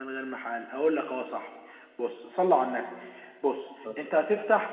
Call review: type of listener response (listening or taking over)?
listening